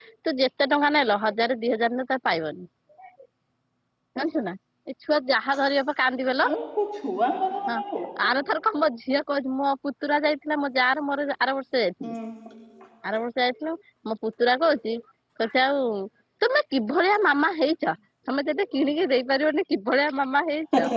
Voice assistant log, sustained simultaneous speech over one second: none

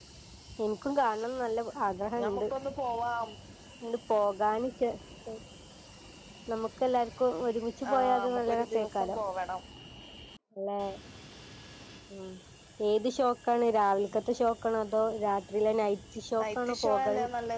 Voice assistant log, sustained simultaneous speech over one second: present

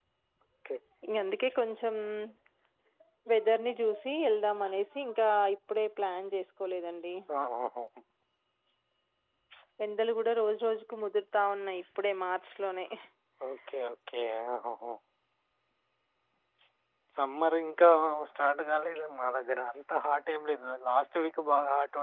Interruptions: none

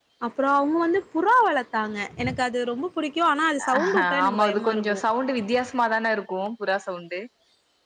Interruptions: present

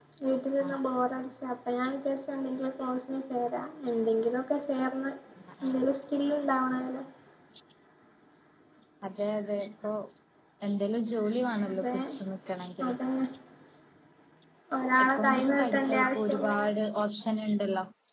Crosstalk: present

